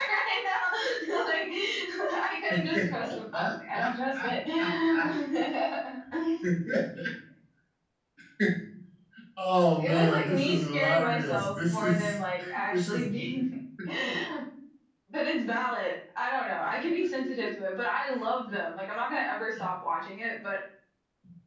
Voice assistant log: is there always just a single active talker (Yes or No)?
No